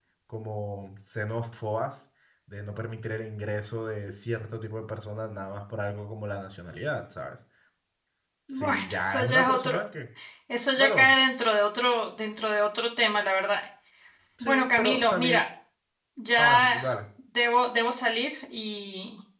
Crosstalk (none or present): present